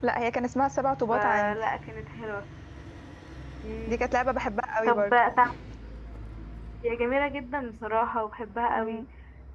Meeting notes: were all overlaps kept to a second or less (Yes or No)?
Yes